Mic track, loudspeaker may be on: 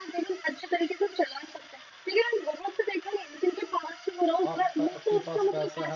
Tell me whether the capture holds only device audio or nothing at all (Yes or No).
No